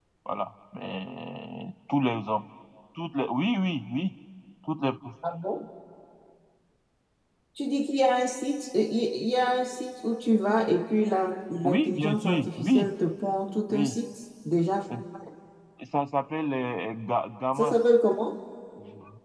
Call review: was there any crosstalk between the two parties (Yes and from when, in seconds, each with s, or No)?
Yes, from 11.6 s